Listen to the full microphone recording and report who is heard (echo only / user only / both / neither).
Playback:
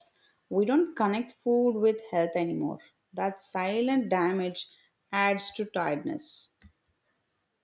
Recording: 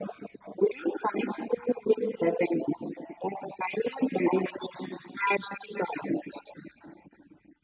echo only